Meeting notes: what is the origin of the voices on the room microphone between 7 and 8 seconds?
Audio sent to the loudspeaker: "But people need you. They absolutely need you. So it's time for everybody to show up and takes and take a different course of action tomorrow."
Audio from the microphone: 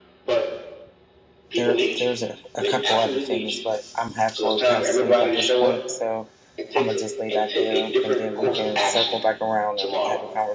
both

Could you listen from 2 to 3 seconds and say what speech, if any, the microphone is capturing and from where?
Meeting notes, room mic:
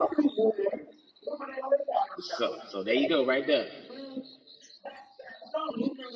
both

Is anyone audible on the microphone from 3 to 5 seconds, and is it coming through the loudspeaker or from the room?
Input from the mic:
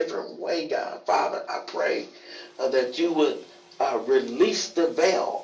echo only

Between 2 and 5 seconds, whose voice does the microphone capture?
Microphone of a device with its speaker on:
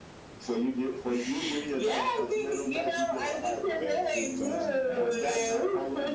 both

